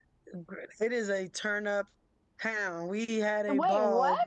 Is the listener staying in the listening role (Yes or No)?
Yes